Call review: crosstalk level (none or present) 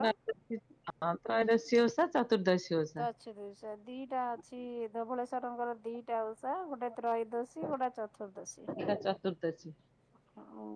none